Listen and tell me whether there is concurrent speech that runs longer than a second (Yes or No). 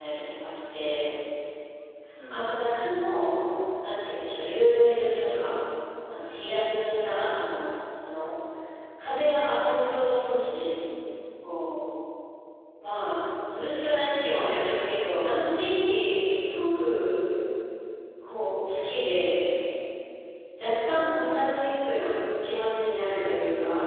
No